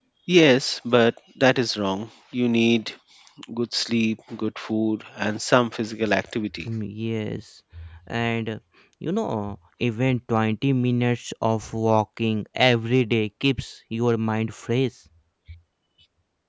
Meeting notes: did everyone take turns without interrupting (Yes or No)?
Yes